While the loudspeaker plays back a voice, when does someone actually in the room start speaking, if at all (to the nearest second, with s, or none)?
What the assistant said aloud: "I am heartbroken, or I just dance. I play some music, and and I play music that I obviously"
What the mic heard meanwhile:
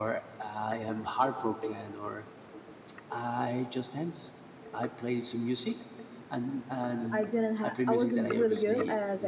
7 s